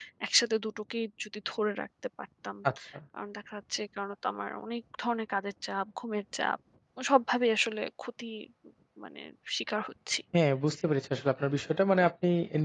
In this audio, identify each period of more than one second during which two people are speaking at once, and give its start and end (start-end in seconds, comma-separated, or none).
none